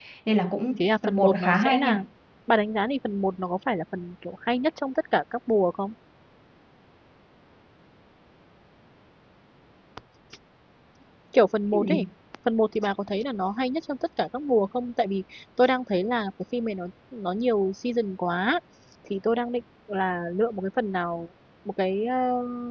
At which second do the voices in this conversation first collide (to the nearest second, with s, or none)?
1 s